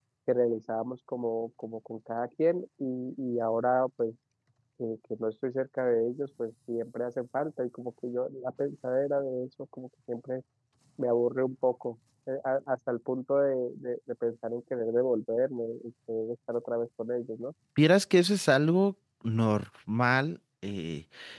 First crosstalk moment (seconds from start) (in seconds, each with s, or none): none